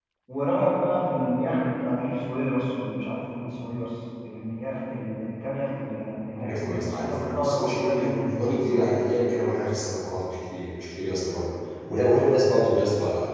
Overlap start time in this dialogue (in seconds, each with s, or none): 6.4 s